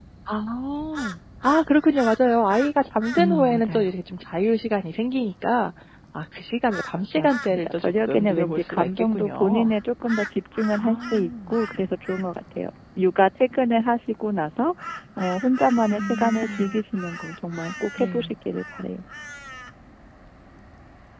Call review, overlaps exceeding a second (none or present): present